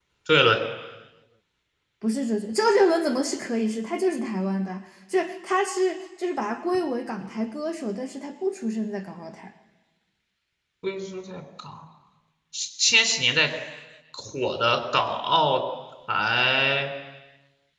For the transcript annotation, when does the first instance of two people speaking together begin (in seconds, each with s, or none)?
none